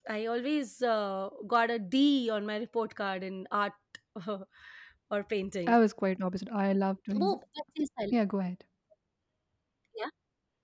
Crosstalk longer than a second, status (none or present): none